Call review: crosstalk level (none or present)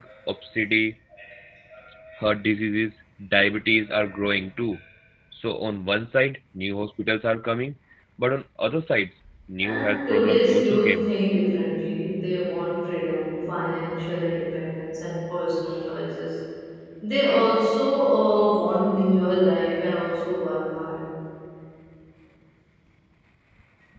present